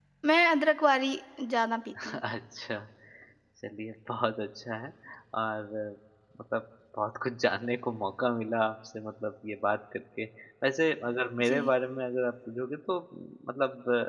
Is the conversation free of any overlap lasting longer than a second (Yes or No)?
Yes